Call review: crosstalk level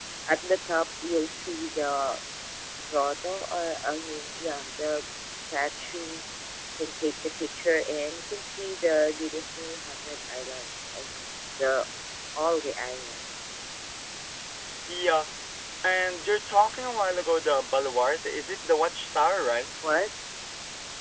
none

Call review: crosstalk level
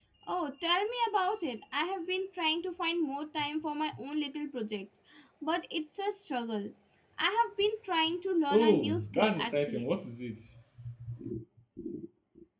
present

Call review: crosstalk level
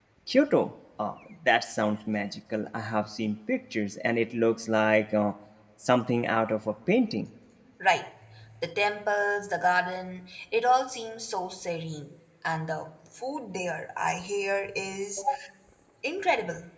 none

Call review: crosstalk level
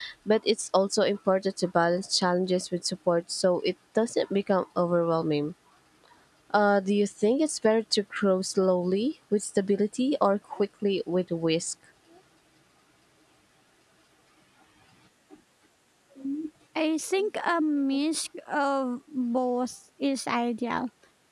none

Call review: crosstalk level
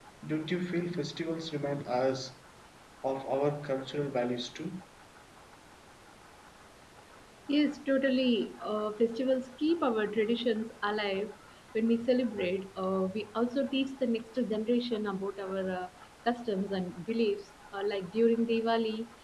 none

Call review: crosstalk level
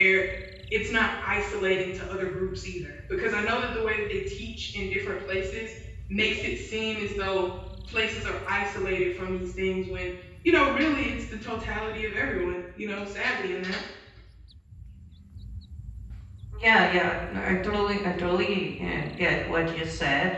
none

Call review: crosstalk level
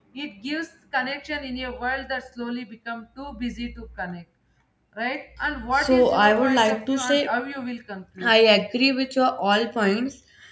present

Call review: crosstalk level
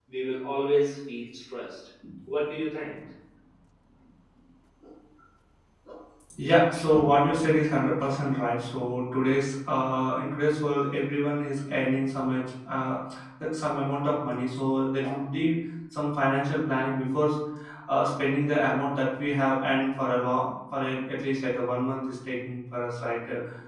none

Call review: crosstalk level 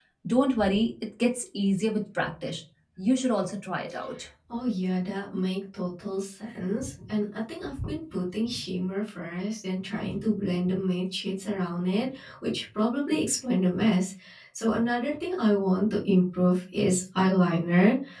none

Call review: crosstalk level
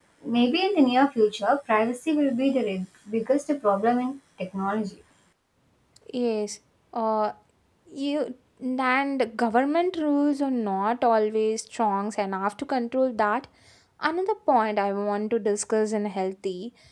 none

